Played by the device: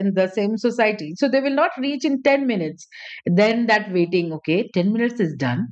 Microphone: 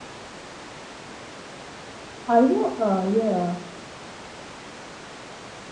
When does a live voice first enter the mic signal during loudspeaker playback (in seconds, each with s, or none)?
2.3 s